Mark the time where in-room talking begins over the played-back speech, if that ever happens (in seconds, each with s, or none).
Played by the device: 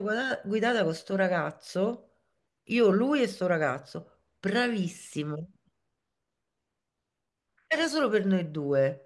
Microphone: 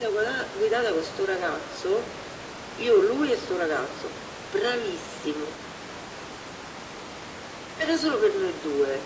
none